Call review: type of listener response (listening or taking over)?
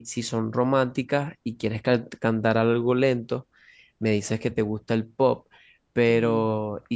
listening